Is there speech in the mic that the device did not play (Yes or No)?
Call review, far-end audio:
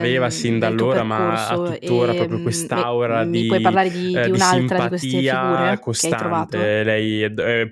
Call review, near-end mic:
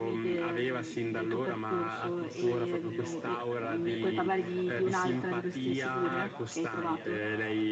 Yes